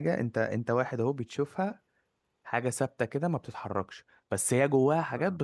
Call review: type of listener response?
listening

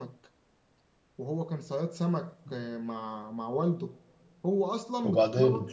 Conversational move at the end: listening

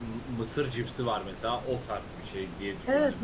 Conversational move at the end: taking over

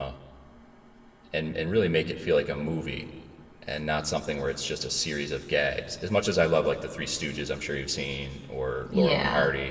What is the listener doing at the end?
listening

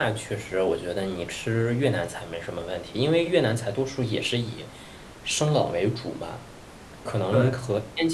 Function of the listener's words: listening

